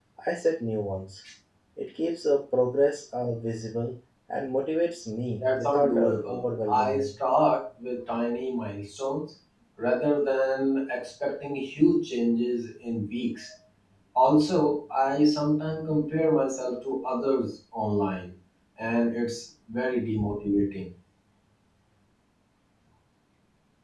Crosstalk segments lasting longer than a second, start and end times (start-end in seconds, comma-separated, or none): 5.4-7.1